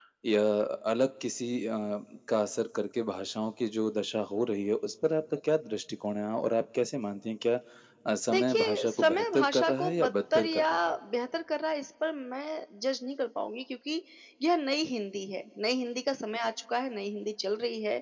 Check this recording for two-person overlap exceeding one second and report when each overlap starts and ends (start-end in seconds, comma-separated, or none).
8.3-10.7